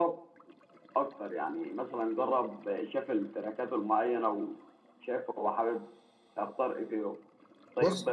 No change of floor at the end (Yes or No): Yes